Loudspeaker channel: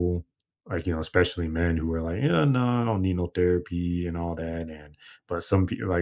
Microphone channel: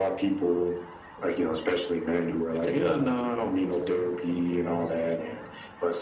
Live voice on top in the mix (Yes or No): No